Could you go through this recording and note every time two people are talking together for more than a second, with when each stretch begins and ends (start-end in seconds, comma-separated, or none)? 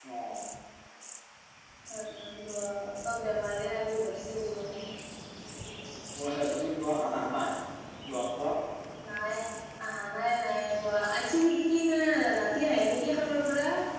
none